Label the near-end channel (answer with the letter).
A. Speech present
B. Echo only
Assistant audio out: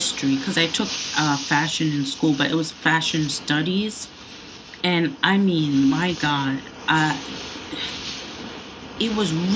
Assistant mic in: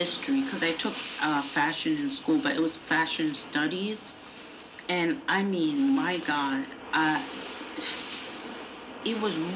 B